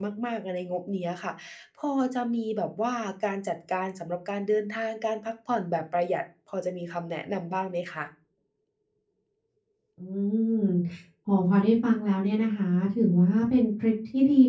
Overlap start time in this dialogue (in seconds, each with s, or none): none